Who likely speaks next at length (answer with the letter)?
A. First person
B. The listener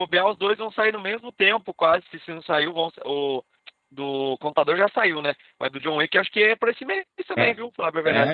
B